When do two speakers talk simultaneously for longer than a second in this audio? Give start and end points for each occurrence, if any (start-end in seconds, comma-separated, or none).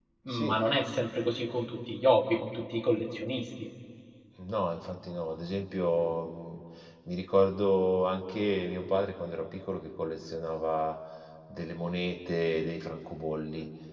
none